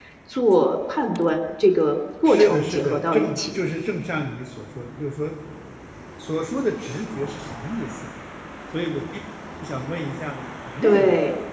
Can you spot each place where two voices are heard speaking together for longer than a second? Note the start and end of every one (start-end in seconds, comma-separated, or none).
2.2-3.6